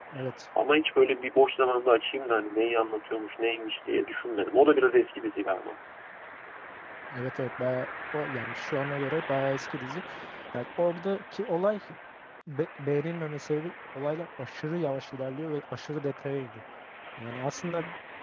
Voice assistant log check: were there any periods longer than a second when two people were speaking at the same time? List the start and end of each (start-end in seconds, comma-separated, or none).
none